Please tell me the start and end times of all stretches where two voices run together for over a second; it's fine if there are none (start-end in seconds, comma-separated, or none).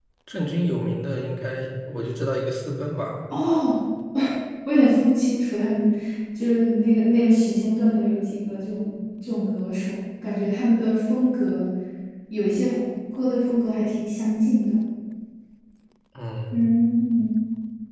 none